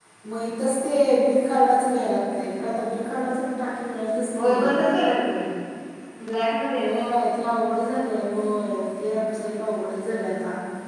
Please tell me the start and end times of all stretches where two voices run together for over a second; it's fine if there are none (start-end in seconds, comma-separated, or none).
none